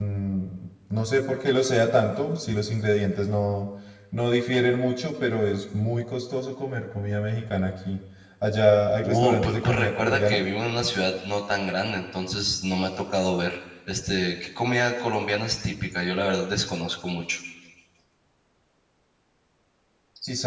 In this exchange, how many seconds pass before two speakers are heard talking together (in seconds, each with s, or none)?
9.0 s